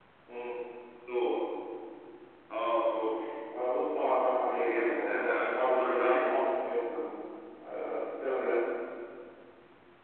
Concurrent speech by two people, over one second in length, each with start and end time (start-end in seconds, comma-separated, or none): 4.5-6.3